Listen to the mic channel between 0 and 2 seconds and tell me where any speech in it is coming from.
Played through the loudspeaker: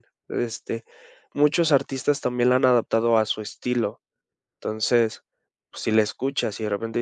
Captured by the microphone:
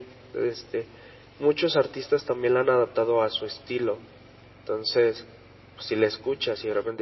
echo only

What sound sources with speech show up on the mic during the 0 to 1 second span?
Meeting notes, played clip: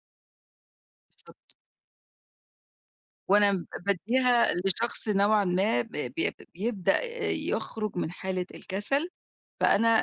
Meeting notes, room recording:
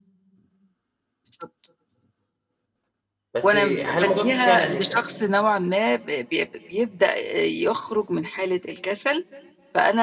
neither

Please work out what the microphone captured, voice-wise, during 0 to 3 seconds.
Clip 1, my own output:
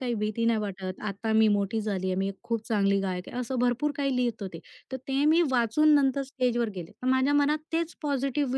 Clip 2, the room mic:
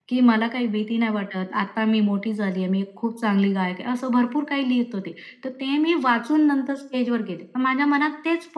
echo only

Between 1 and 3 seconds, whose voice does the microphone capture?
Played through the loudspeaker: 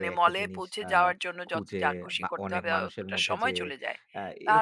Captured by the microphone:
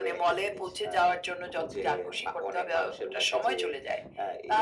echo only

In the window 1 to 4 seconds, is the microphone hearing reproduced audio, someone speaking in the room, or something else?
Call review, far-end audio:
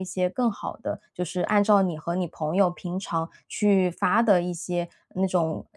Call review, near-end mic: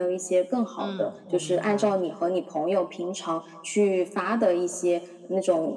both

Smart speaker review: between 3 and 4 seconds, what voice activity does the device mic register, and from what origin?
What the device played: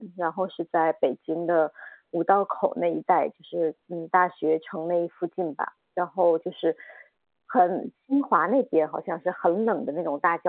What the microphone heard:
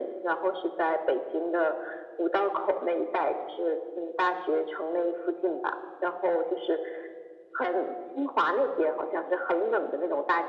echo only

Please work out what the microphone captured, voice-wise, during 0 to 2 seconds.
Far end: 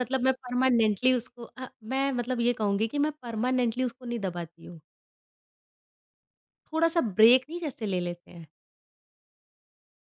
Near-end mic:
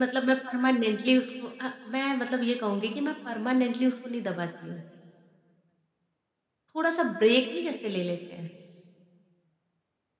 echo only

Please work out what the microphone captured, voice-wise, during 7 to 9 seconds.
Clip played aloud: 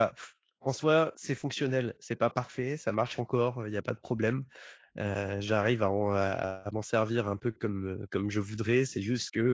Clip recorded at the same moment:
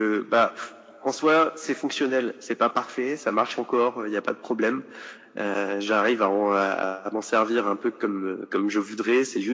echo only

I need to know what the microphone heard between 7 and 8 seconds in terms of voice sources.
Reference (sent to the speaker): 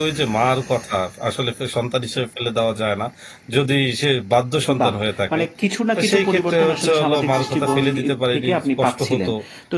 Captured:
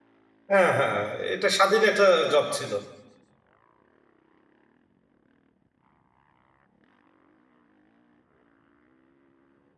neither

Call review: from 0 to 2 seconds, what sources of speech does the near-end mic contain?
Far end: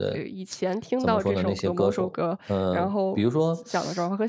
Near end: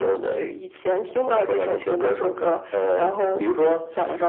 echo only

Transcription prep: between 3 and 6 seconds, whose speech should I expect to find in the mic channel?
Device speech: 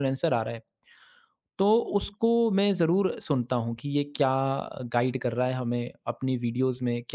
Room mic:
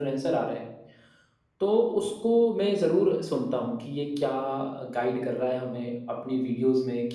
echo only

